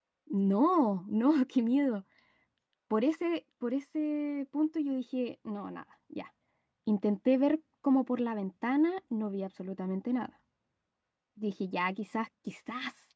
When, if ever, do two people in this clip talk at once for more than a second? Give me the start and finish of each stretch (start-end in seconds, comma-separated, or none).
none